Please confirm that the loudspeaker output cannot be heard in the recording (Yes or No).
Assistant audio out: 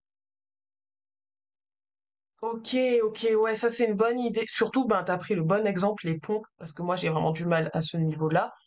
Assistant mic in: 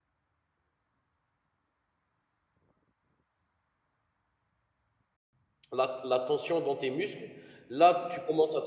Yes